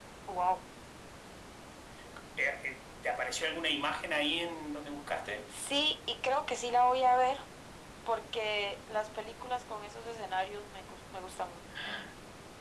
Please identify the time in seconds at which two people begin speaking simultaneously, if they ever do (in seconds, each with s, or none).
none